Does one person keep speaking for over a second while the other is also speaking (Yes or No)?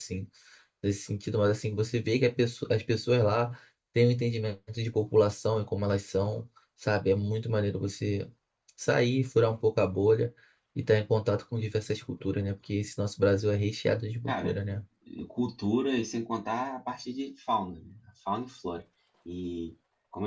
No